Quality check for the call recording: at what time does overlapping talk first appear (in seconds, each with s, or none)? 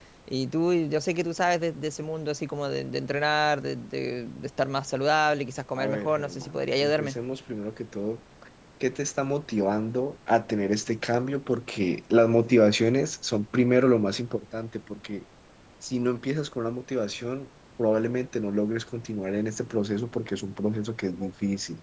5.8 s